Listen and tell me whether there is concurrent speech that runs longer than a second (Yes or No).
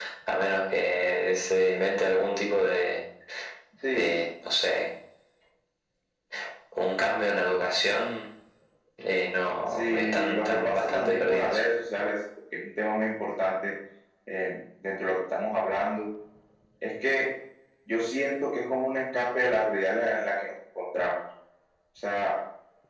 Yes